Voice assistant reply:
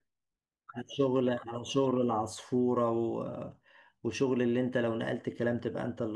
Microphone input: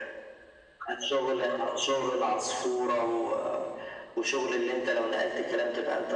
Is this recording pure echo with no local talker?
Yes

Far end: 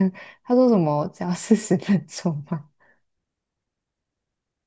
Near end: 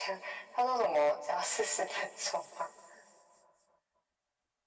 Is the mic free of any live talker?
Yes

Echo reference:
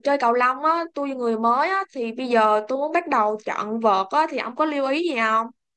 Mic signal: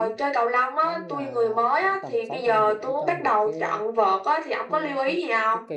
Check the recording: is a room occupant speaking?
Yes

